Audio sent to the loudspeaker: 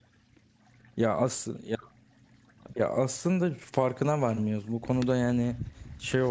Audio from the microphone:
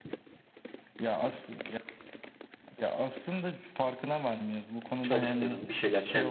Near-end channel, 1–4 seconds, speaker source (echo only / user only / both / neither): echo only